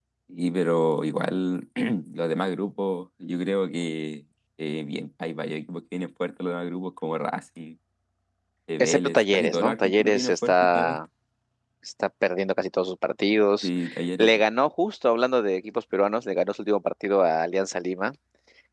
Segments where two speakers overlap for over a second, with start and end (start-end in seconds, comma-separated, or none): 8.8-11.0